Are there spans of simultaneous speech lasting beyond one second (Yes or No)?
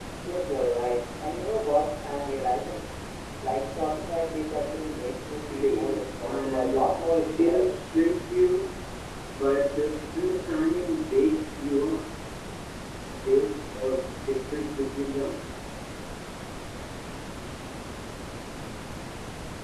Yes